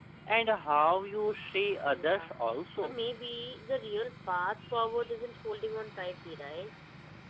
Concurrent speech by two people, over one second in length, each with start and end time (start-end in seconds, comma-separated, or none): none